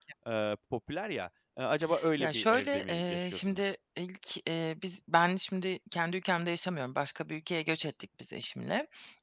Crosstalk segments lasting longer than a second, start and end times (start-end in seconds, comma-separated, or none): 2.2-3.7